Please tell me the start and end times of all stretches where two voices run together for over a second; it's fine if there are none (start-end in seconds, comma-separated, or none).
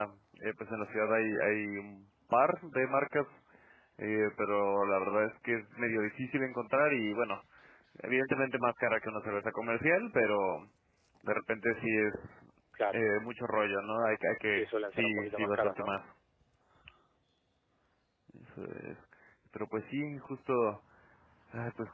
14.5-15.9